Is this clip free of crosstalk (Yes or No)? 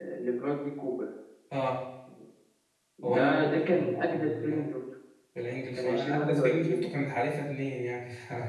No